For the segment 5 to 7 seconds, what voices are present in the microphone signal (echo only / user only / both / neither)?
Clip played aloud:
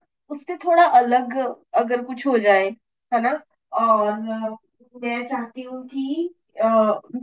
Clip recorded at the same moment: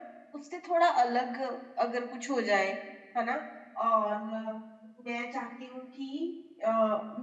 echo only